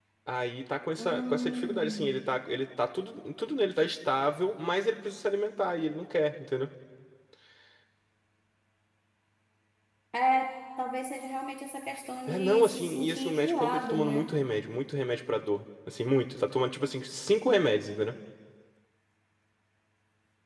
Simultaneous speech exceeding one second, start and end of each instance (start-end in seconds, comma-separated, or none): 1.0-2.2, 12.3-14.3